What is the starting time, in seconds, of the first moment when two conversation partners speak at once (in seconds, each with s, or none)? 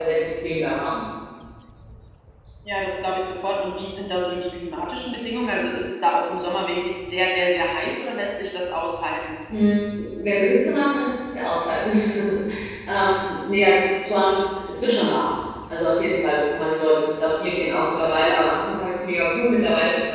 none